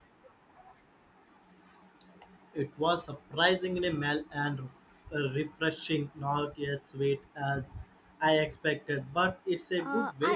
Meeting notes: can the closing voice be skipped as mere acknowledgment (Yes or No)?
No